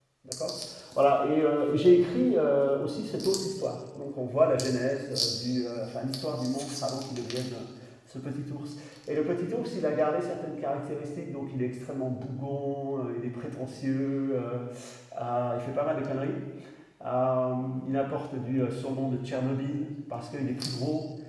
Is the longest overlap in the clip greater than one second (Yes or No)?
No